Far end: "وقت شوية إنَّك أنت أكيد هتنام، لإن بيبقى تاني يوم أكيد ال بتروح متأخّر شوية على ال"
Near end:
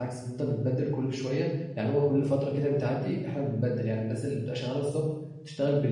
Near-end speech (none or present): present